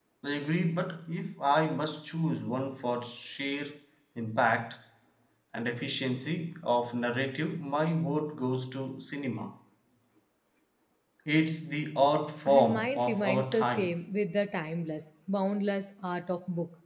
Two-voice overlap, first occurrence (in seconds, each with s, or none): 12.4 s